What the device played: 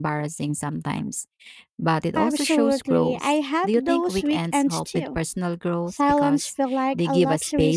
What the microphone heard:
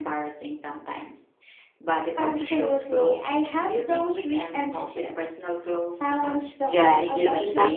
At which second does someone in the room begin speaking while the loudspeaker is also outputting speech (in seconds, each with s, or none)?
6.6 s